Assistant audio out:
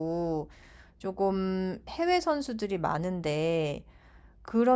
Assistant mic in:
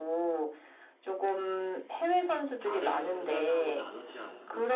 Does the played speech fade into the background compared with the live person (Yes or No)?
No